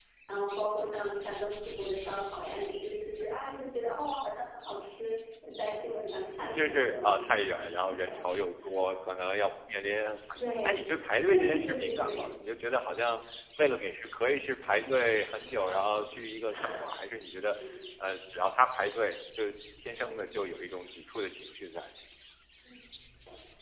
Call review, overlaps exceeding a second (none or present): present